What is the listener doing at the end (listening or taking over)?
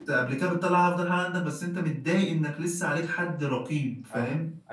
taking over